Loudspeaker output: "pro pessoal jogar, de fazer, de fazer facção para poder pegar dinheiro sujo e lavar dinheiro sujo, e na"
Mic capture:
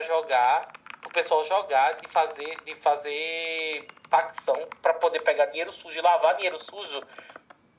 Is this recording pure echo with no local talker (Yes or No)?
Yes